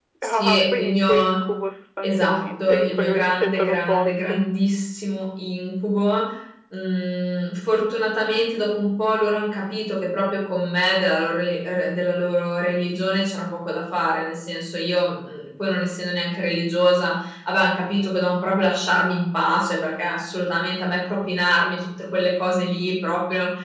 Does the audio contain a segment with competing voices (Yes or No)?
Yes